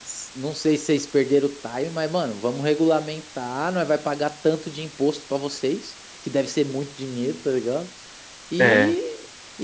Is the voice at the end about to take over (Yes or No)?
No